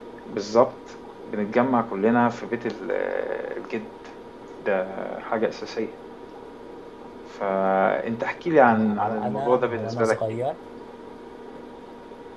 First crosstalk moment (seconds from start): 8.7 s

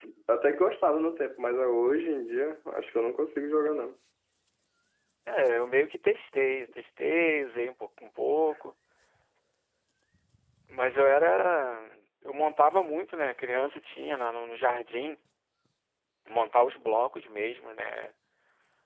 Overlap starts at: none

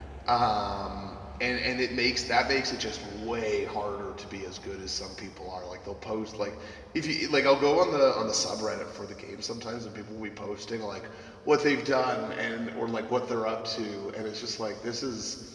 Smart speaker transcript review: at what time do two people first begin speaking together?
none

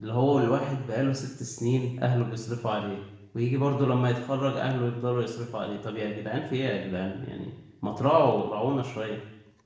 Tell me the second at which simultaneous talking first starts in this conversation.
none

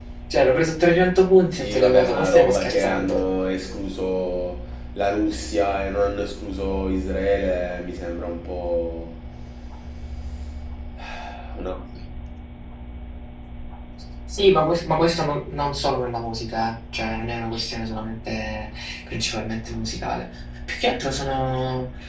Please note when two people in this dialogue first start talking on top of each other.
1.6 s

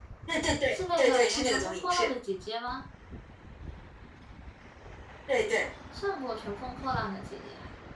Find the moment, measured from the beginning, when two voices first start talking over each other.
0.7 s

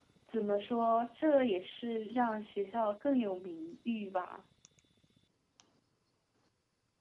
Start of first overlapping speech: none

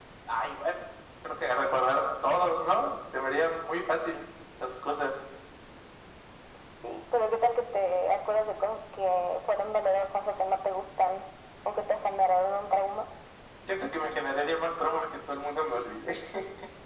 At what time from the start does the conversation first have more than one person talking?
none

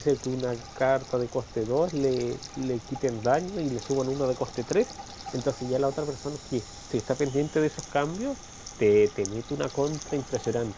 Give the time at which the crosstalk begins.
none

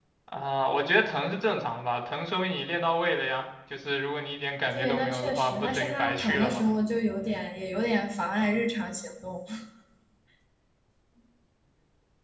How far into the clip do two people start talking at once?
4.7 s

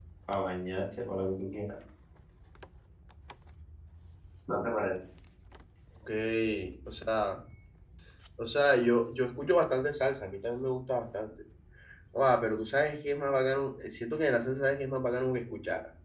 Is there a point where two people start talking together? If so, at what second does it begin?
none

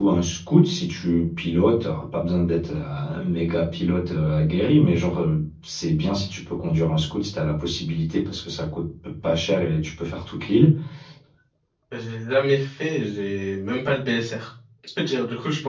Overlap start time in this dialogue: none

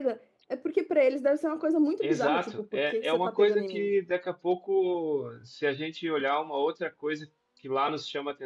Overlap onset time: 2.0 s

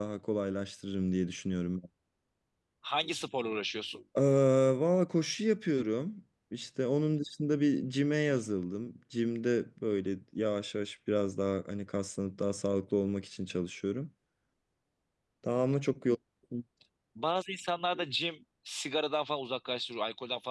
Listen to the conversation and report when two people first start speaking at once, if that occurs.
none

